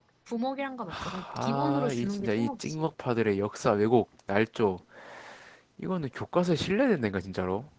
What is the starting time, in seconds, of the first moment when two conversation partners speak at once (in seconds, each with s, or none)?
0.9 s